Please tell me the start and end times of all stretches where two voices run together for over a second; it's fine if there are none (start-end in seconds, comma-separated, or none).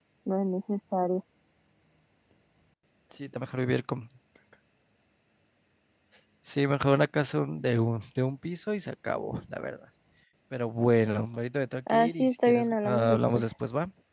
11.9-13.4